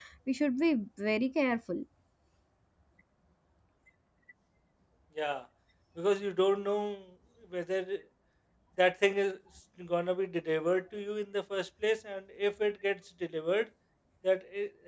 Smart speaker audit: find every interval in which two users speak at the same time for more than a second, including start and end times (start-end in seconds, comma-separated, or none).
none